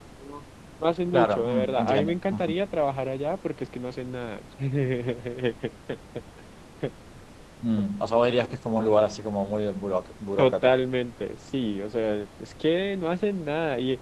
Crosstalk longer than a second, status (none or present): present